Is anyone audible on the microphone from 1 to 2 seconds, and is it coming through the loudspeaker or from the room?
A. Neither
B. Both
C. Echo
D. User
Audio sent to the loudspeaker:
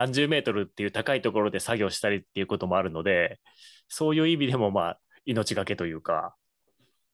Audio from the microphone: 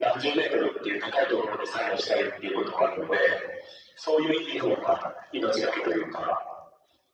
C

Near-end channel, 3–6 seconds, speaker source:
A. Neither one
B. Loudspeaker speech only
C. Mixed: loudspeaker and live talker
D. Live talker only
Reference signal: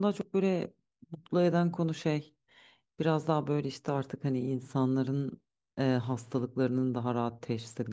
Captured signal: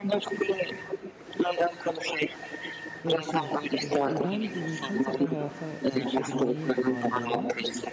C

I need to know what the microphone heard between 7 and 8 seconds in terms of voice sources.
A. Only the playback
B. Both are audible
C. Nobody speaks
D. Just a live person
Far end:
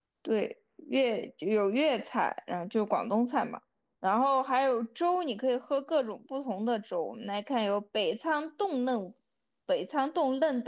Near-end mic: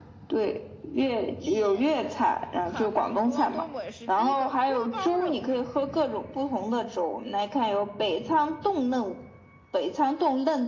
A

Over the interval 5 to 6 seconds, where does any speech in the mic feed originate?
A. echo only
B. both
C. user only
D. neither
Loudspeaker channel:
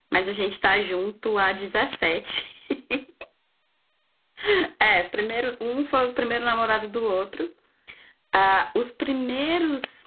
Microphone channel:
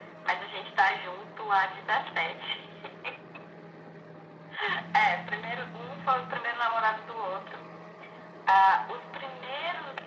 A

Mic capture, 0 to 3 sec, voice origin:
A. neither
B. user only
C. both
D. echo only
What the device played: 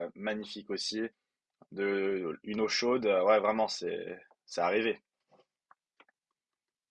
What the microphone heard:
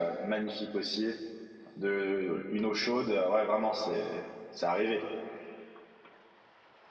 D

